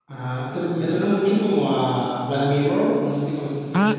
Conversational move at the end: taking over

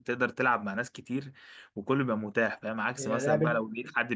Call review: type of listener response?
listening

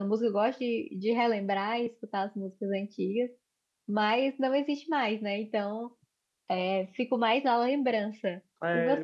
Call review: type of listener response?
taking over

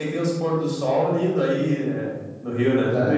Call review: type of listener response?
taking over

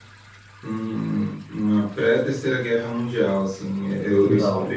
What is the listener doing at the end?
listening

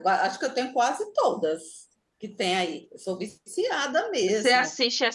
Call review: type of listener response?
taking over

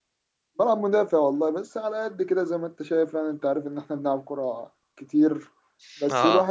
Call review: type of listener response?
listening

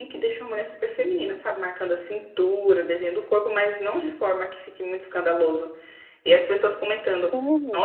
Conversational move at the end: listening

